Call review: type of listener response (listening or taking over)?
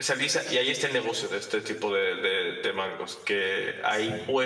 listening